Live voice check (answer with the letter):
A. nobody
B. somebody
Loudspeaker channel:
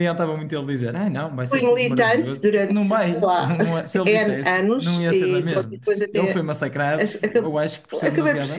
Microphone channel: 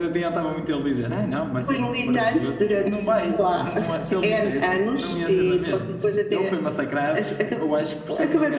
A